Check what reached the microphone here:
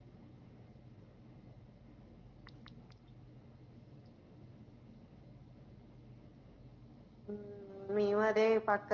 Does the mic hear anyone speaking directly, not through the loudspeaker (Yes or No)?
Yes